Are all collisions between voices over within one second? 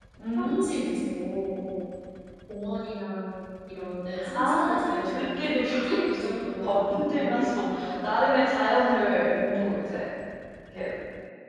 No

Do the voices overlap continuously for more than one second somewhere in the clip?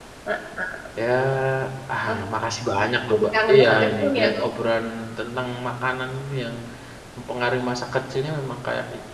Yes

